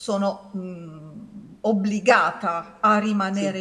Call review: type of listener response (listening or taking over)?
listening